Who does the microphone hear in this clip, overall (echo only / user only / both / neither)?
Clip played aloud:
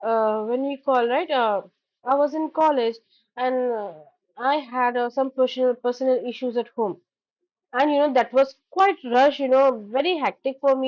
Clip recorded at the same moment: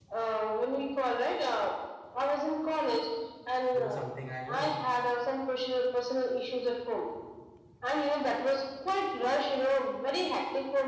both